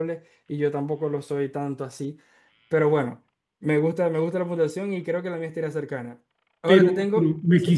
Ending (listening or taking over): taking over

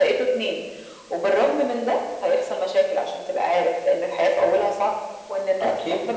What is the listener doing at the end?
listening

